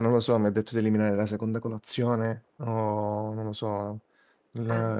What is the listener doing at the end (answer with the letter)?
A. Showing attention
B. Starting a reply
A